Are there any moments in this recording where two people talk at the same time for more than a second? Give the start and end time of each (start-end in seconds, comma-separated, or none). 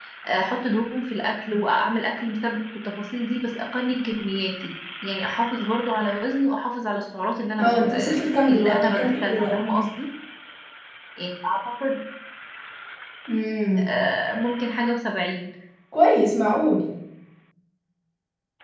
7.6-9.6